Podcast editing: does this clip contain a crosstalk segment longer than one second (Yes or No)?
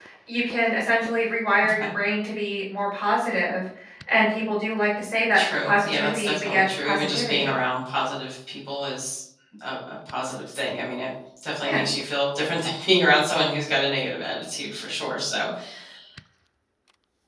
Yes